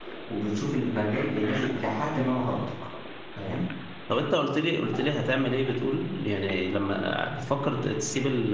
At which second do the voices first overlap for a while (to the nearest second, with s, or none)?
none